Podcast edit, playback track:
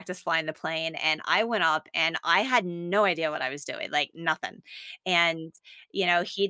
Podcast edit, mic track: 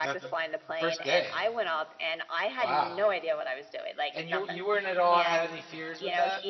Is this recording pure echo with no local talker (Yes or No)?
No